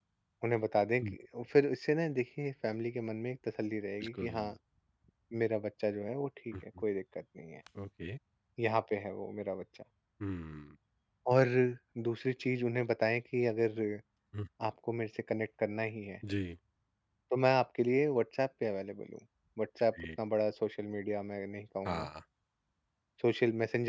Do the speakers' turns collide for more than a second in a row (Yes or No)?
No